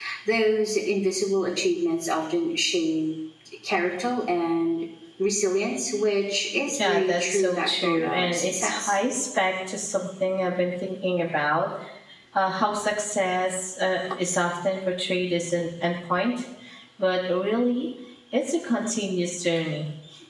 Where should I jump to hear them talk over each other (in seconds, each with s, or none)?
6.7 s